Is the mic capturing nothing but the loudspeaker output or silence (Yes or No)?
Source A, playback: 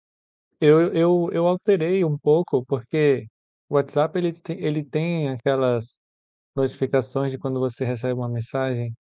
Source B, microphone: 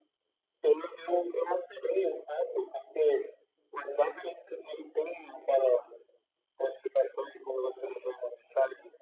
Yes